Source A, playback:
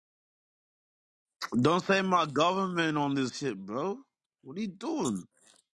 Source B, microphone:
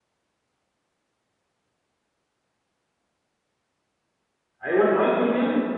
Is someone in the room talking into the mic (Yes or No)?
Yes